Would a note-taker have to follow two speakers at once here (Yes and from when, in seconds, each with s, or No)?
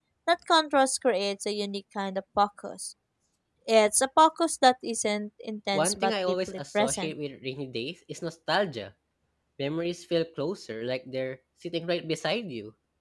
Yes, from 5.7 s